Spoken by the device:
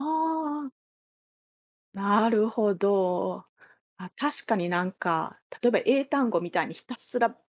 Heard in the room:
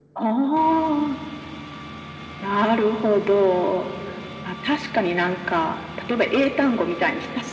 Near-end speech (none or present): none